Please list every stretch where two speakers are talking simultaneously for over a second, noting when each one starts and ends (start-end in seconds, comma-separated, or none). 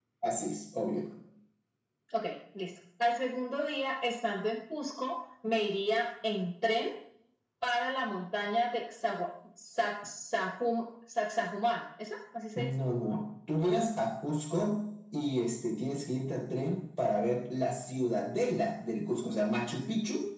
none